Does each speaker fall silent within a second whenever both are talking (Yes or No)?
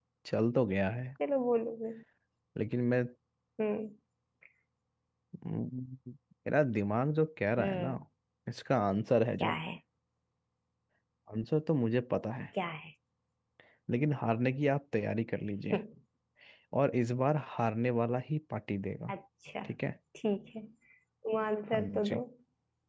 Yes